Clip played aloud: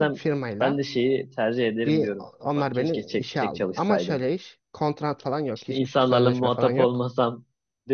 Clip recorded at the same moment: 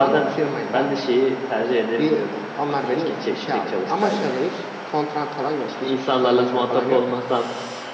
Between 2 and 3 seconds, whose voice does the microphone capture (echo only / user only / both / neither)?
echo only